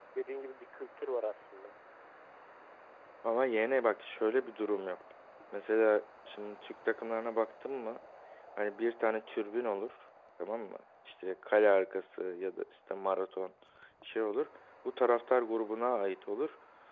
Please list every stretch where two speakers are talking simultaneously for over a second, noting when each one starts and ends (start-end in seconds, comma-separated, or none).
none